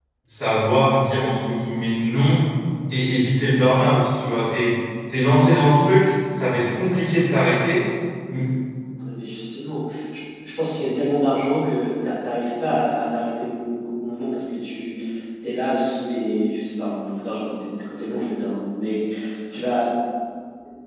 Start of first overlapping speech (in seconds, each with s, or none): none